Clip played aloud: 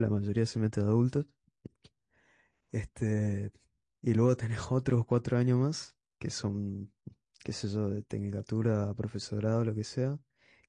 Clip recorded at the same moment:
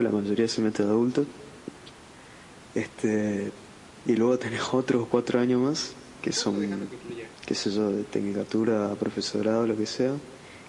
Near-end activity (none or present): present